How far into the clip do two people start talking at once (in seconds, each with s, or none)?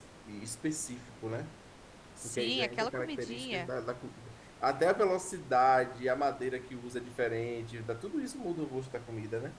2.2 s